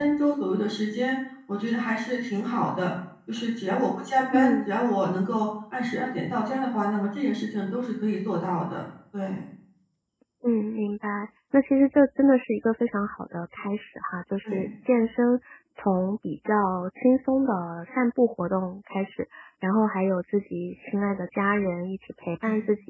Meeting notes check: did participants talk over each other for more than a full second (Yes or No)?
No